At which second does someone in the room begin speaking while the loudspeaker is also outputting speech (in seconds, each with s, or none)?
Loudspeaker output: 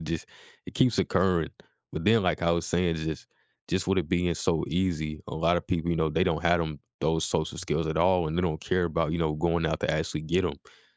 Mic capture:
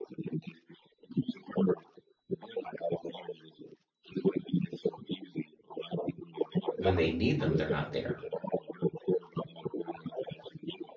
6.7 s